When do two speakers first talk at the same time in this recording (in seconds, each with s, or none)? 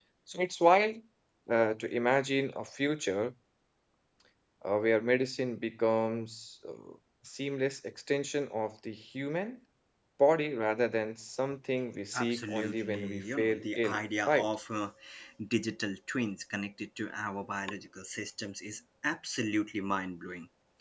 12.1 s